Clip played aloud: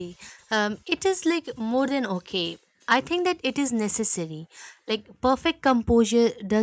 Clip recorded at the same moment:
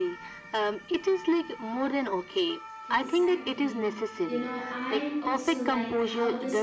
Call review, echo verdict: present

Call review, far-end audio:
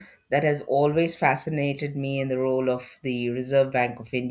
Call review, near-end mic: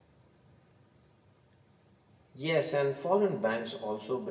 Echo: none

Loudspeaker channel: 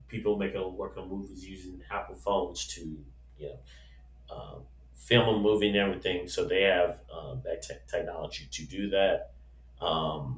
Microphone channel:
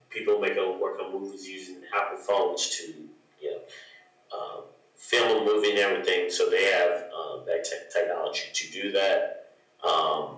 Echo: present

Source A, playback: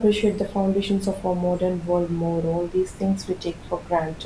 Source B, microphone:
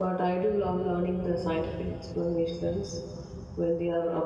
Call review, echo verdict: none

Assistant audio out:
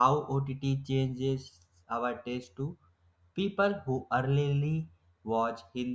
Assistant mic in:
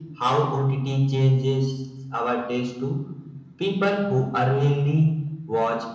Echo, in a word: present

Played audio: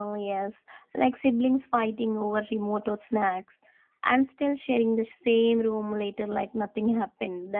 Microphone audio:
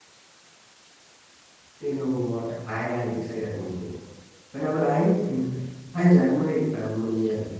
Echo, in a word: none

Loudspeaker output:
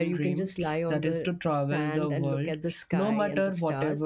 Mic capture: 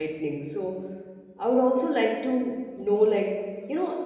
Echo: none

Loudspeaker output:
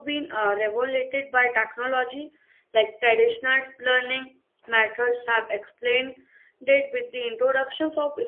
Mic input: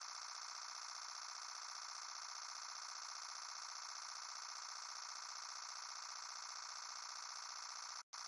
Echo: none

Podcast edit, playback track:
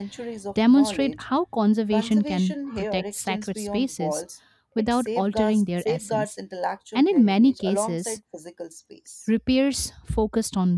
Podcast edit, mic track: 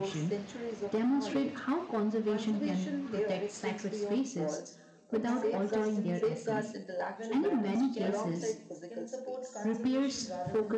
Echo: present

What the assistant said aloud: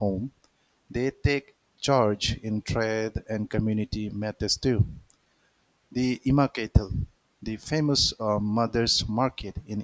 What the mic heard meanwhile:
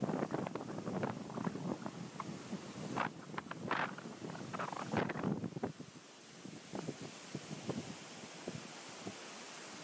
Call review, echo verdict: none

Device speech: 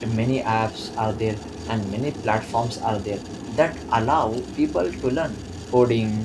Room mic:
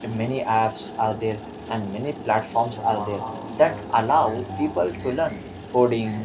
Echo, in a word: present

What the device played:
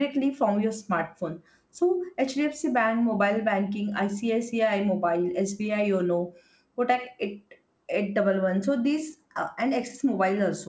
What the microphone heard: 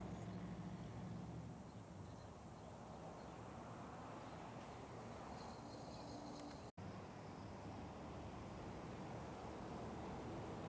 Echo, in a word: none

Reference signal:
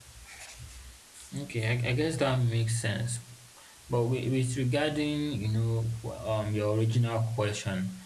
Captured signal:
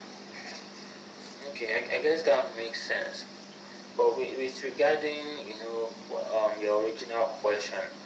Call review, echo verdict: present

